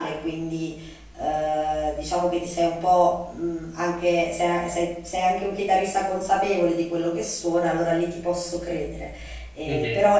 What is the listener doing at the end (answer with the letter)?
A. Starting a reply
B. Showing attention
B